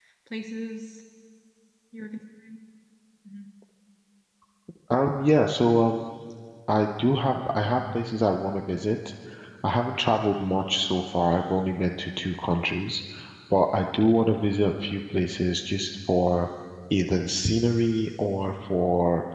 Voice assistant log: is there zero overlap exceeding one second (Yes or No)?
Yes